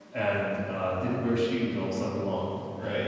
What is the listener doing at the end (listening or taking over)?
listening